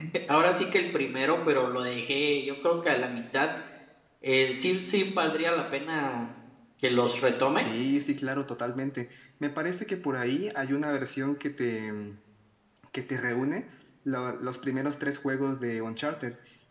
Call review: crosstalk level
none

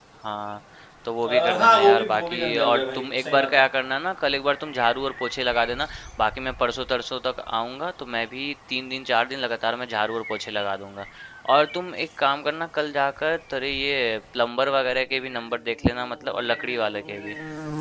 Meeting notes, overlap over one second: present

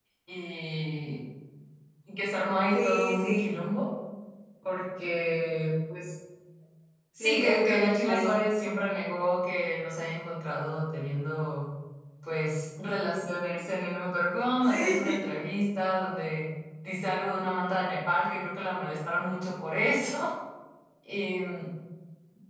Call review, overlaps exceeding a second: present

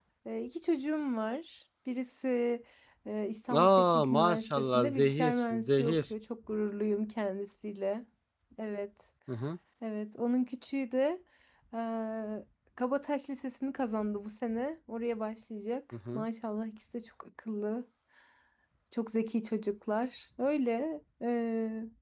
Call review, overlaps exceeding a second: present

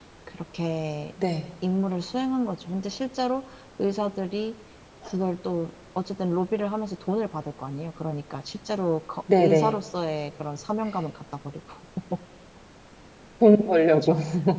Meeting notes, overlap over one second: none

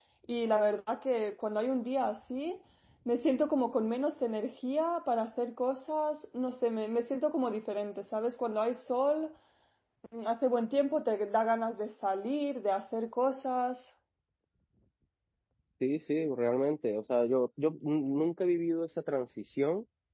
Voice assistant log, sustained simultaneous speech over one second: none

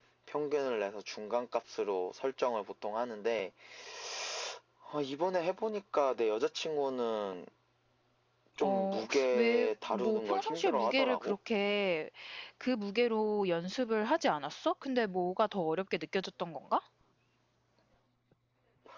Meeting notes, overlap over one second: present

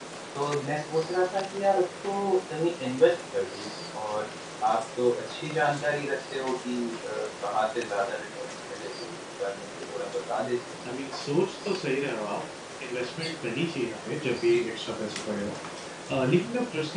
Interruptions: none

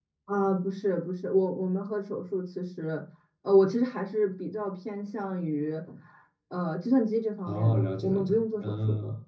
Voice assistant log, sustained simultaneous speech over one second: present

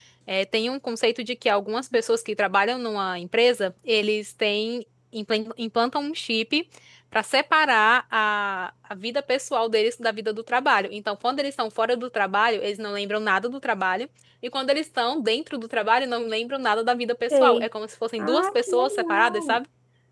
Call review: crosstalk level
present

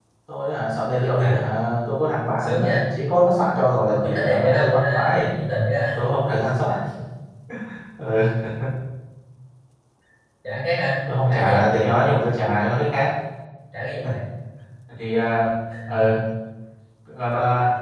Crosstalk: present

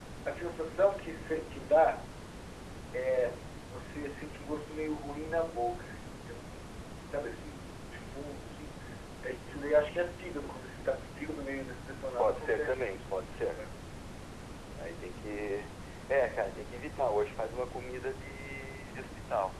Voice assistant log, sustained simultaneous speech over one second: present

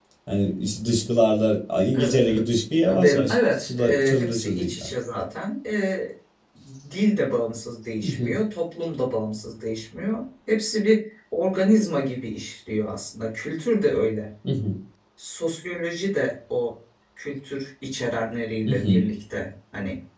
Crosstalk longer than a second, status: present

